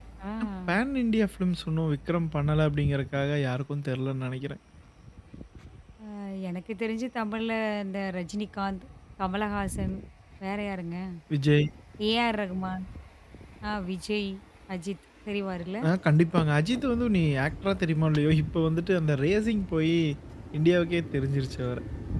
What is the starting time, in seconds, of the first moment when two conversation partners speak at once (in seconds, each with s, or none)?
none